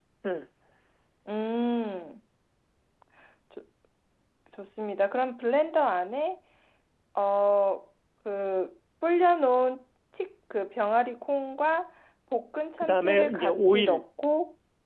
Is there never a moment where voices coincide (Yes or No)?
No